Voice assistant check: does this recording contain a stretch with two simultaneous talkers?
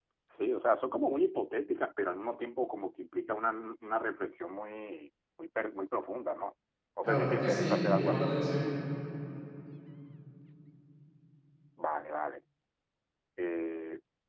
Yes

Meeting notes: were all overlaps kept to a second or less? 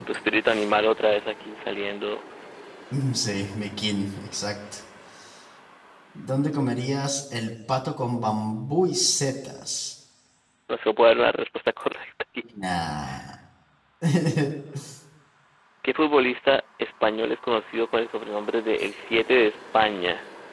Yes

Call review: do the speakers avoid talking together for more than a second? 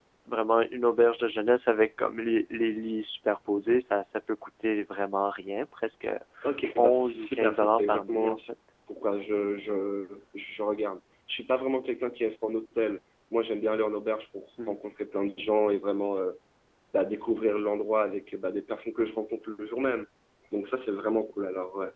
No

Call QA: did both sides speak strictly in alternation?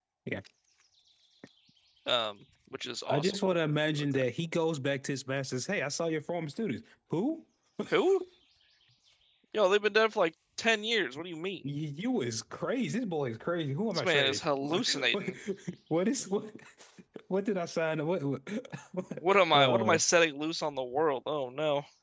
No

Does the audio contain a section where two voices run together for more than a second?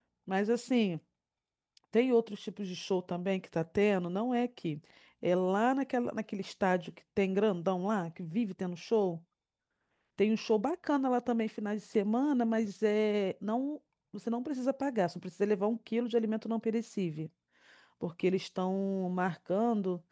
No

